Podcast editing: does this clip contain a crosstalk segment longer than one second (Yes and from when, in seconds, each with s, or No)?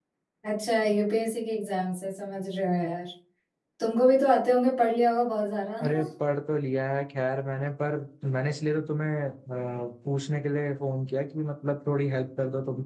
No